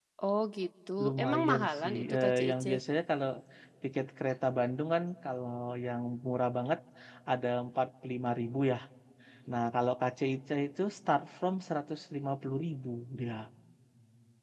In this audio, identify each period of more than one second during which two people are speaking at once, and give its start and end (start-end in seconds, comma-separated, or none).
1.0-2.6